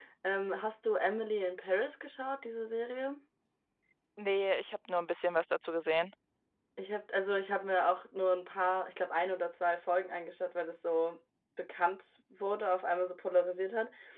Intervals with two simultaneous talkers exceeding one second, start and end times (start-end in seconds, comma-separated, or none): none